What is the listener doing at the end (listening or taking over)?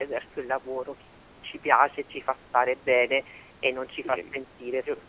taking over